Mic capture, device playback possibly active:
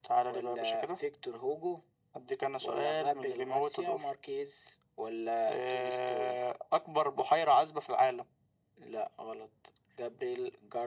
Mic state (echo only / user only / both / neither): echo only